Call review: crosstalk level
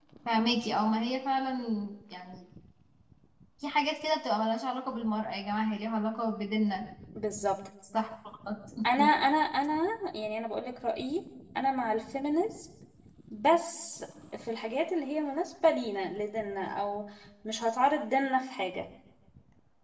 none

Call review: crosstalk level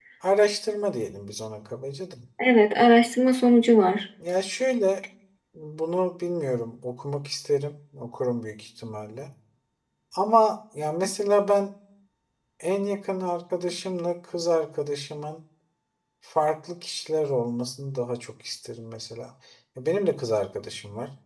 none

